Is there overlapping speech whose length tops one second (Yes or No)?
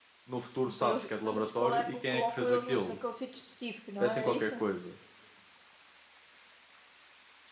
Yes